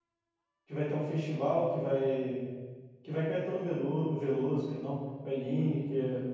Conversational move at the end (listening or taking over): listening